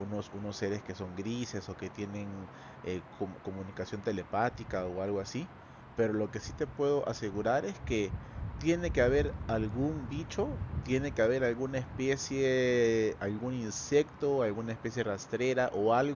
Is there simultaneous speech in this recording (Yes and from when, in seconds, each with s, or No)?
No